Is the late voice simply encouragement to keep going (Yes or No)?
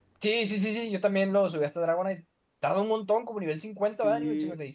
No